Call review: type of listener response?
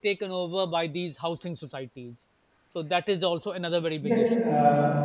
taking over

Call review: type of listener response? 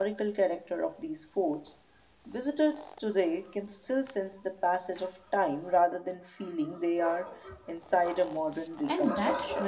taking over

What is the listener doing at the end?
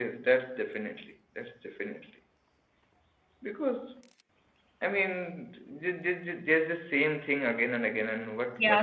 taking over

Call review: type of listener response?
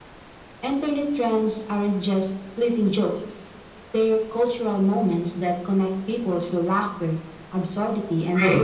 taking over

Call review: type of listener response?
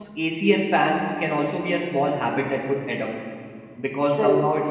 listening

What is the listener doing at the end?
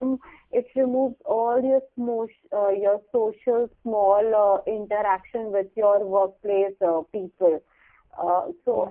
listening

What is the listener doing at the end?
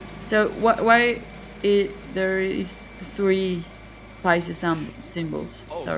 taking over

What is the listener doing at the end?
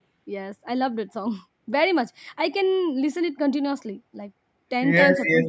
taking over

